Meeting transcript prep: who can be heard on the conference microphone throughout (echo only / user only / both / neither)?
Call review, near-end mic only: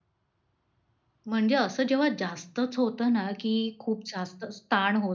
user only